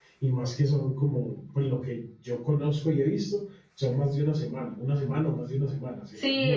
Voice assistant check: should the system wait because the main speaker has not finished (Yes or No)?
No